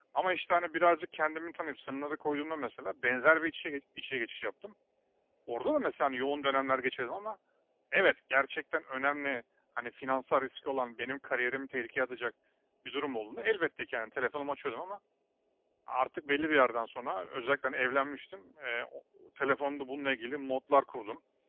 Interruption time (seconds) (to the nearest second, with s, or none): none